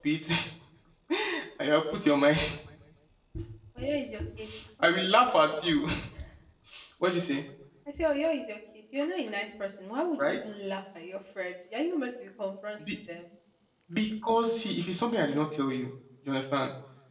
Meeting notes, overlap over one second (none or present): none